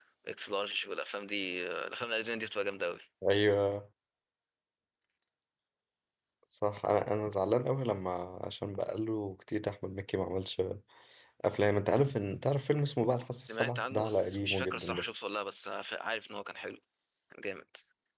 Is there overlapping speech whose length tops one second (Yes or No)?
Yes